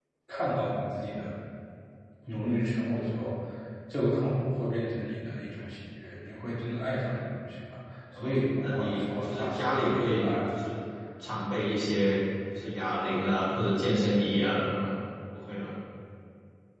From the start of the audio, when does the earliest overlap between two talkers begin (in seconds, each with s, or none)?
8.1 s